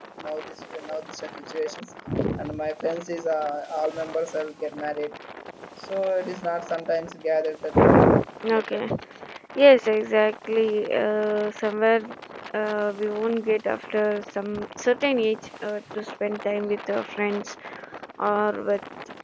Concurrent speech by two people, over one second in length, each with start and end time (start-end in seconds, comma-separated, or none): none